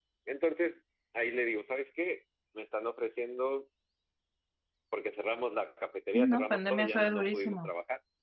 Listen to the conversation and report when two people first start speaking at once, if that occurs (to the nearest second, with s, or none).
6 s